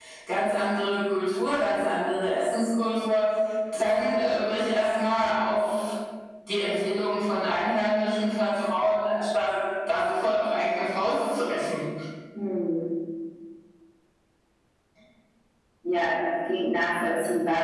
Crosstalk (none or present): none